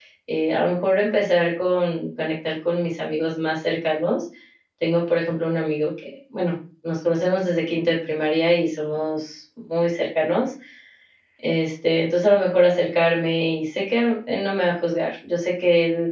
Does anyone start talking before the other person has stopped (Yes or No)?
No